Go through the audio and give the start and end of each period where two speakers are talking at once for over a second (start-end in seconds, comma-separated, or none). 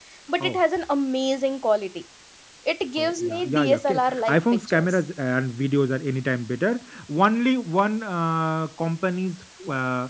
3.0-5.0